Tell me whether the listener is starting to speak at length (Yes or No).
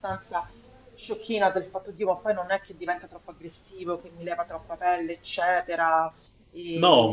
Yes